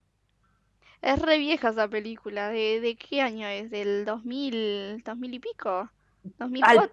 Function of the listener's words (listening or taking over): taking over